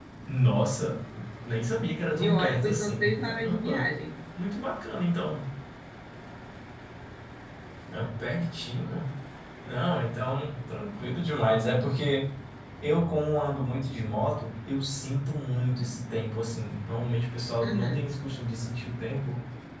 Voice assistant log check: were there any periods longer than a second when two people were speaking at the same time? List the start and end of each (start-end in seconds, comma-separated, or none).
2.0-3.8